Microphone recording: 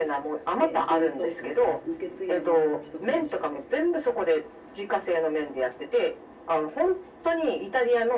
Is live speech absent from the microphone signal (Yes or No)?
No